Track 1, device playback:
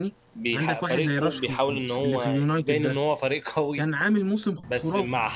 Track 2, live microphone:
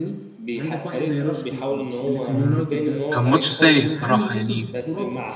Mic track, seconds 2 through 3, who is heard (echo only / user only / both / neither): both